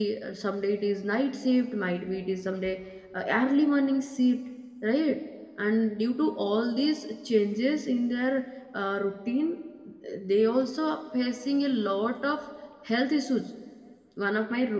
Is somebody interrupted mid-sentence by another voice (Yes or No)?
No